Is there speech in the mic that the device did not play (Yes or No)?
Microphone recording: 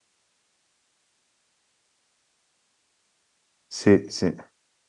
Yes